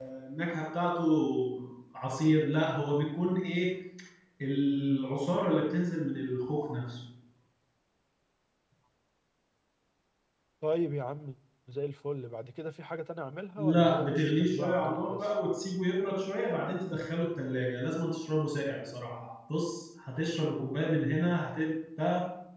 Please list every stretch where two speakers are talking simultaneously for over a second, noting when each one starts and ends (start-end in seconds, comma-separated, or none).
13.6-15.3